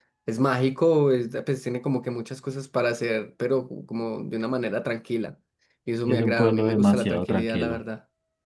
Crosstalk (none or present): present